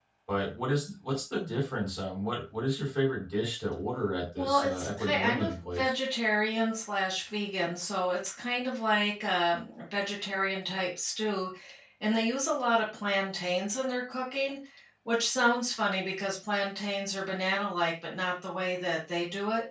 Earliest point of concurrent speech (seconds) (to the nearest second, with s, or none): 4 s